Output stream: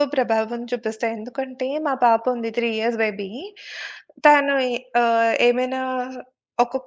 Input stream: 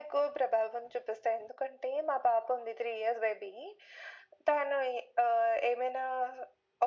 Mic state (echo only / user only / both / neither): echo only